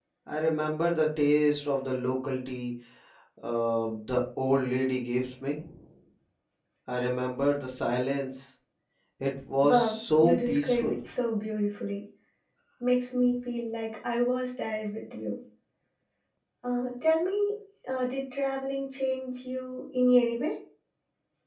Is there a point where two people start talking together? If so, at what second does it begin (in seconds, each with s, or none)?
9.6 s